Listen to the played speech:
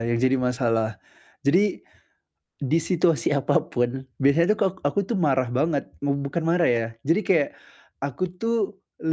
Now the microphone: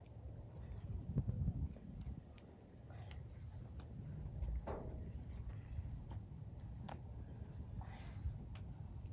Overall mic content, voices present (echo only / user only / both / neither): neither